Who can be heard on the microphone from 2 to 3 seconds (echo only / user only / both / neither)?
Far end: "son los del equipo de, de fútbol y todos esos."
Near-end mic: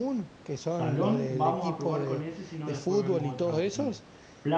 both